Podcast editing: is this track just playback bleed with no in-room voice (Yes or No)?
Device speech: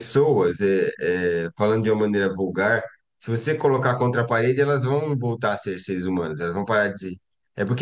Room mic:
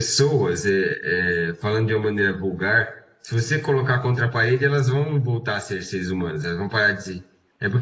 Yes